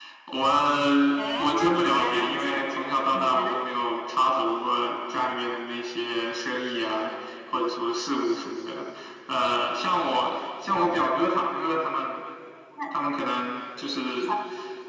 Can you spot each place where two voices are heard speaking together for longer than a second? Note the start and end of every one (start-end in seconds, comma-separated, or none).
1.4-3.5